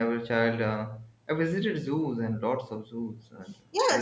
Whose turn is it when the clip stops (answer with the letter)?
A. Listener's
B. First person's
A